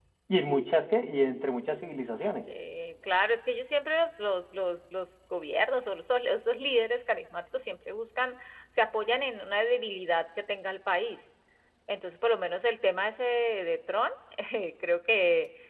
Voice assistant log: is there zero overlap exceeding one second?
Yes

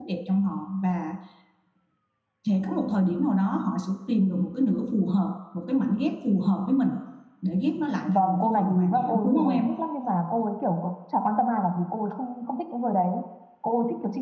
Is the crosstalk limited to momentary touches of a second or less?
No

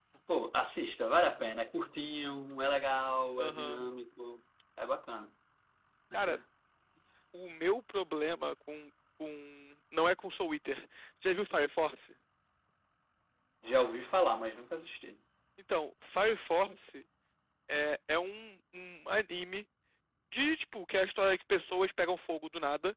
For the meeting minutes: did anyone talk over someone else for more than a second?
No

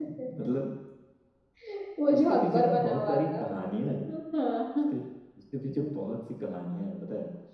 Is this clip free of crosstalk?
No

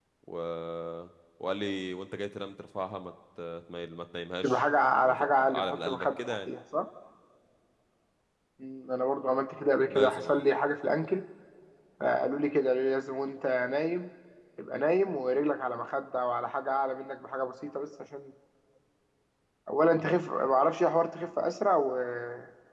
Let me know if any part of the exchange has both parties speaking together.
Yes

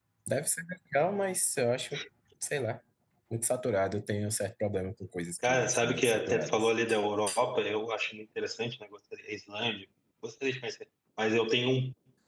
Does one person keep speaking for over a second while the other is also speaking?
Yes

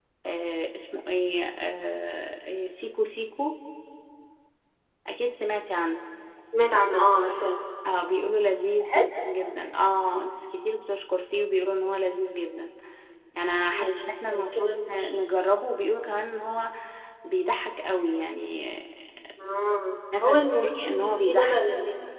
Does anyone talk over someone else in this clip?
Yes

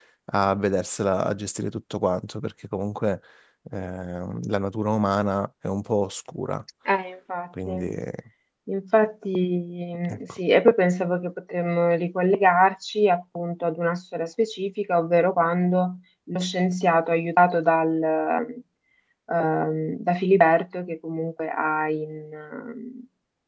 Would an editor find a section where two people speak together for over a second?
No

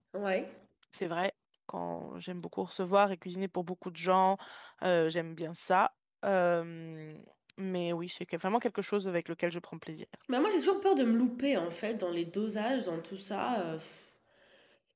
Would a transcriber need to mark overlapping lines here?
No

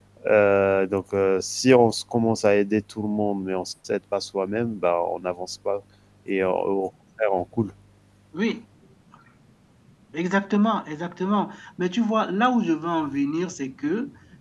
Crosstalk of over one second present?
No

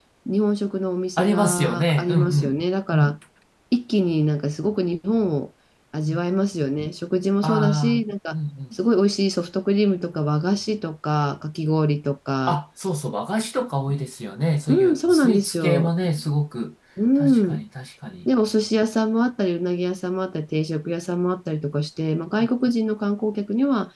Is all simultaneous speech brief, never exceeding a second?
No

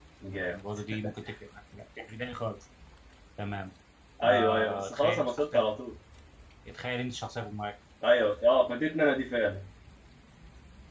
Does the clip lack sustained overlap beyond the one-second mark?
No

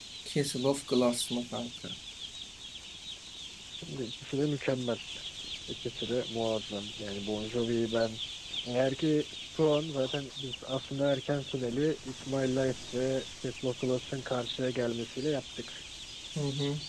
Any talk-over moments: No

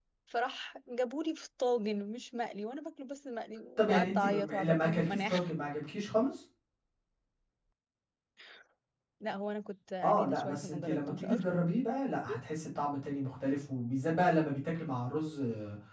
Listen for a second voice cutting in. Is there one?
Yes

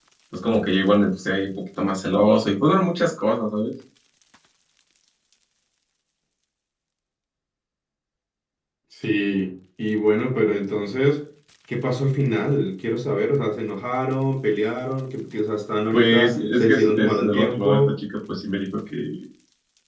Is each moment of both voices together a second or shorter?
No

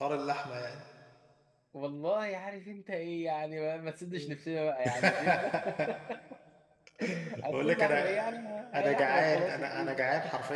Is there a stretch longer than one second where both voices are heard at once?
Yes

